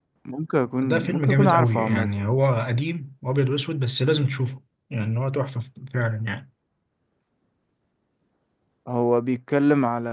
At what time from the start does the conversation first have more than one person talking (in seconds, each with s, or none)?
0.8 s